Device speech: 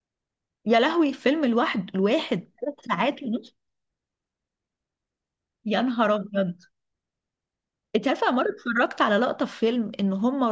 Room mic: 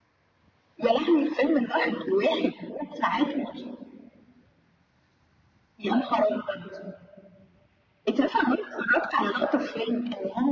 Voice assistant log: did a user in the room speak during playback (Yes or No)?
No